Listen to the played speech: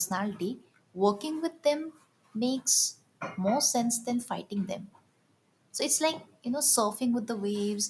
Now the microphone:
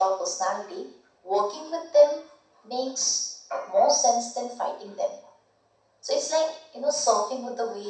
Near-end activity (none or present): none